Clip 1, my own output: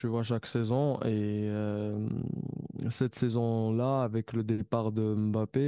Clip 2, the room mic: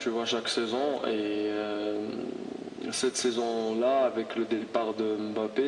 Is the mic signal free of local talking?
Yes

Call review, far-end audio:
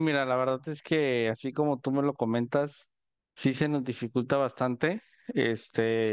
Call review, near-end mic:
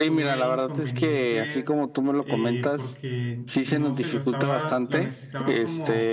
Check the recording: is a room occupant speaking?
Yes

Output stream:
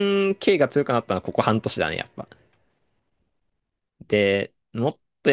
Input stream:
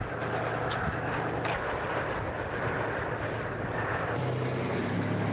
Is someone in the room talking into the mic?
No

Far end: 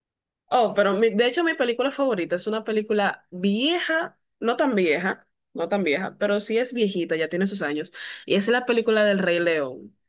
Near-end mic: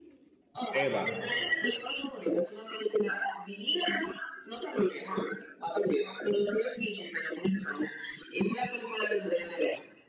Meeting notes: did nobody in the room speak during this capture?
No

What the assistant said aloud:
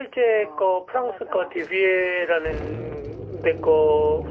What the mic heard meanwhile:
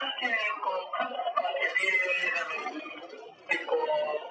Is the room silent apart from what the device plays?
Yes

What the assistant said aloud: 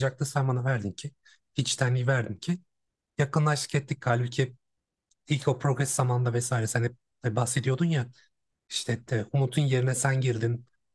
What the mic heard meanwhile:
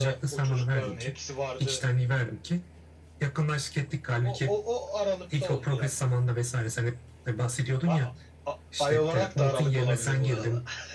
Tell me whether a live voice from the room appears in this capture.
Yes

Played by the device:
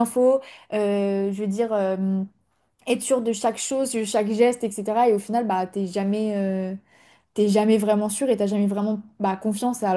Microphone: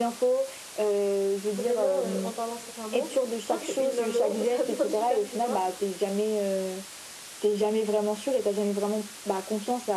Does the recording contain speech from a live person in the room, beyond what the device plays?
Yes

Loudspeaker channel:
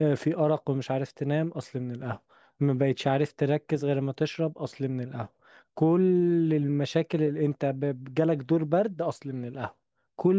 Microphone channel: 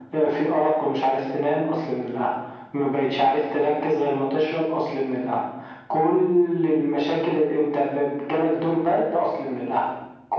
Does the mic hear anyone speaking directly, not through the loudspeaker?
No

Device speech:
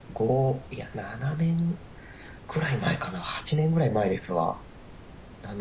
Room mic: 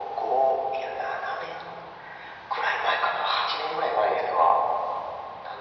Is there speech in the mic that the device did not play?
No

